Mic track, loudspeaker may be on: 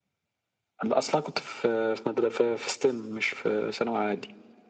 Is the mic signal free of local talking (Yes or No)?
Yes